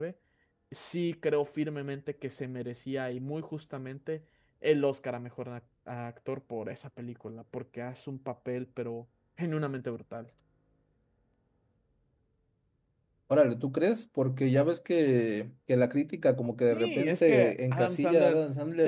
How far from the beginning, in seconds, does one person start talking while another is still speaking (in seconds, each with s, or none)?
16.7 s